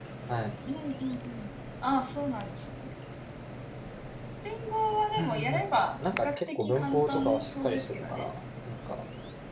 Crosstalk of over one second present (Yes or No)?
Yes